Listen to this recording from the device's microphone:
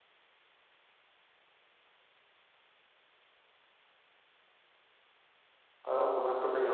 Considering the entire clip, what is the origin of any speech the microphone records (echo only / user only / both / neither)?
user only